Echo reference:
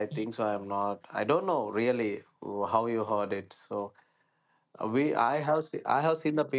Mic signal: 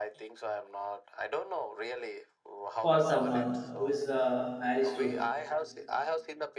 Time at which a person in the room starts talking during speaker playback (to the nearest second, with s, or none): 3 s